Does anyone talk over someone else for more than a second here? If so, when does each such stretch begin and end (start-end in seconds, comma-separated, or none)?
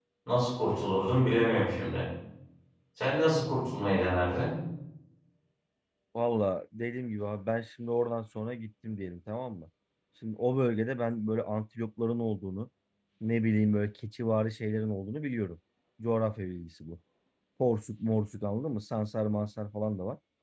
none